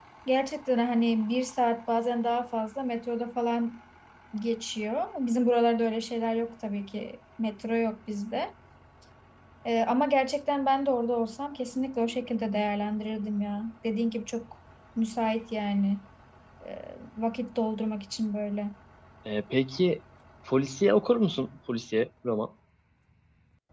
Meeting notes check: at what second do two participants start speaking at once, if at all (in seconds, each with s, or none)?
none